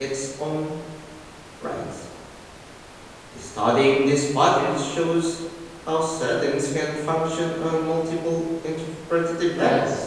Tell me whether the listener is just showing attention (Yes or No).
No